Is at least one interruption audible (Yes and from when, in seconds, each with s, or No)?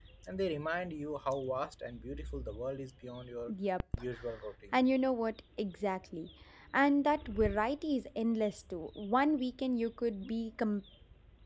No